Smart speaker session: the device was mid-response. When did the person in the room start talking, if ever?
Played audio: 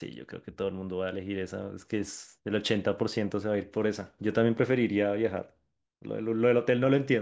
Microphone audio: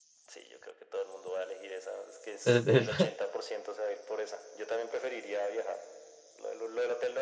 2.4 s

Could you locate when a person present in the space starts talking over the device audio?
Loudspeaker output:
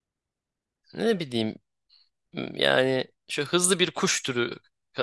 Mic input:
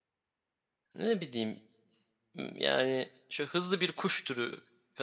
none

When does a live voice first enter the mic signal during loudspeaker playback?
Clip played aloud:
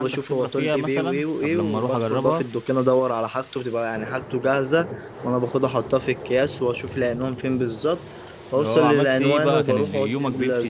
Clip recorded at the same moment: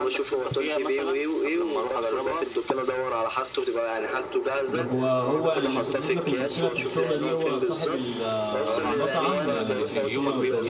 4.7 s

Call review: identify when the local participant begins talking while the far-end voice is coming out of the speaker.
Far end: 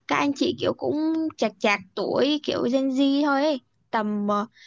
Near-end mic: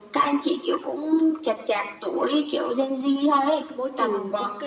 3.7 s

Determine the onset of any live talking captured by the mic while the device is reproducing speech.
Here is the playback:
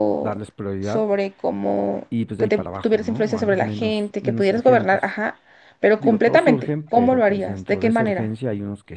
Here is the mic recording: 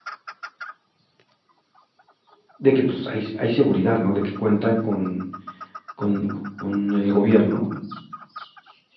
2.6 s

